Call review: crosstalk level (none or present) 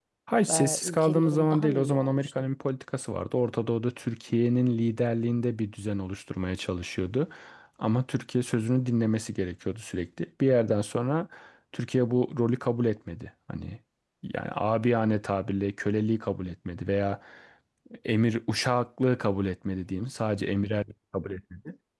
present